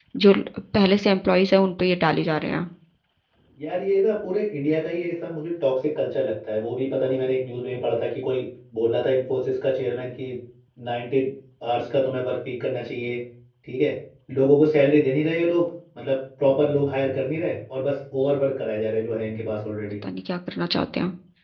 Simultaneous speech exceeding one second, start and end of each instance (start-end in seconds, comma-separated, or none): none